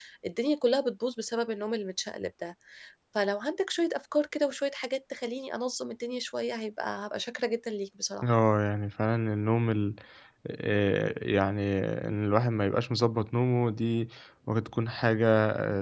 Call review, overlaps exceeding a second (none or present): none